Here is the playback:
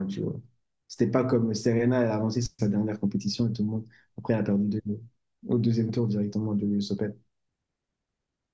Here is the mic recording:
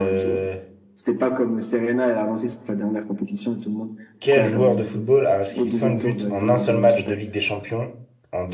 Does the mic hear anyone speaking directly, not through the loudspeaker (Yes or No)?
Yes